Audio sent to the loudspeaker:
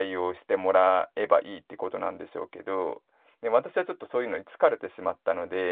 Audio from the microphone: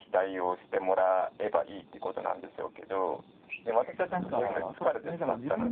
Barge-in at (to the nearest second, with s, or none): 4 s